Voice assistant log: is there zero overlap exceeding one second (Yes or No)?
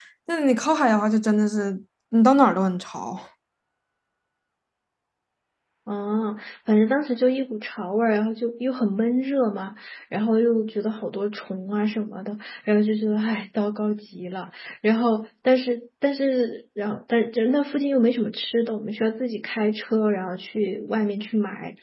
Yes